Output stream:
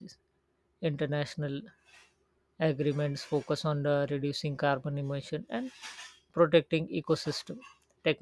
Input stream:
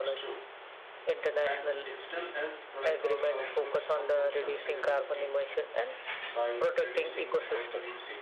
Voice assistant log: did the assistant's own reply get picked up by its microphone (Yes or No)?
Yes